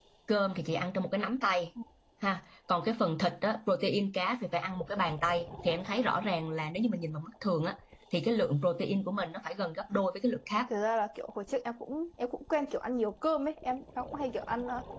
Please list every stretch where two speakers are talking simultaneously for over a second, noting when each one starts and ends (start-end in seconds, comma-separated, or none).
none